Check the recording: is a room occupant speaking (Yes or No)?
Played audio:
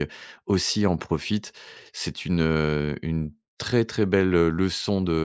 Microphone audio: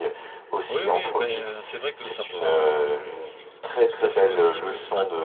Yes